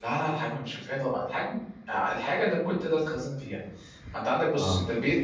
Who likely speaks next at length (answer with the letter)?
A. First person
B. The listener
A